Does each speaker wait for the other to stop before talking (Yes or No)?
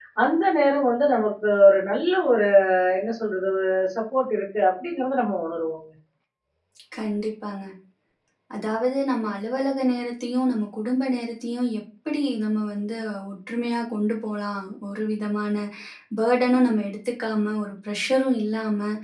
Yes